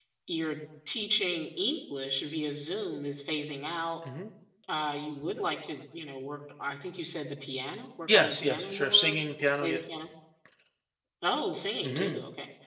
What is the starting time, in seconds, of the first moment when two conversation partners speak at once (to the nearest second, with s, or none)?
8 s